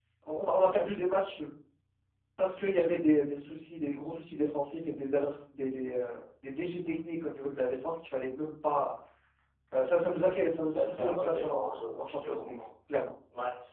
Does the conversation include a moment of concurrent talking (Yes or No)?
Yes